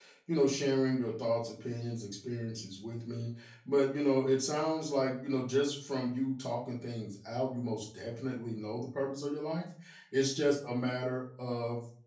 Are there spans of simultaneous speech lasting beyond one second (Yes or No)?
No